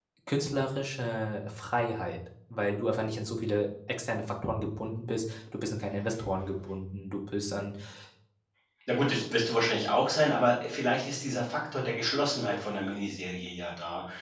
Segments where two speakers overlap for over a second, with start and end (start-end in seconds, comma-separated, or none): none